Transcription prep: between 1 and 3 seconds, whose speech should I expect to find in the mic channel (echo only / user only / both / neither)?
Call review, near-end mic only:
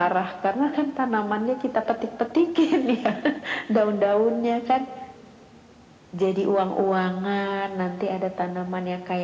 echo only